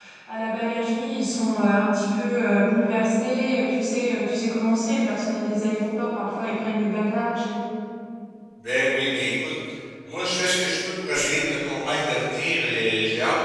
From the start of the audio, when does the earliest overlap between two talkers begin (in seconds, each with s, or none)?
none